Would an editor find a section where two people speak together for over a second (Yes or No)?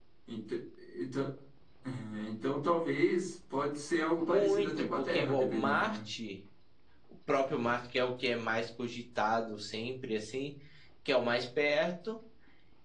Yes